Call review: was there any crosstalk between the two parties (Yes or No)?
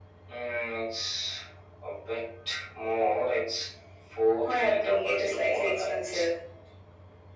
Yes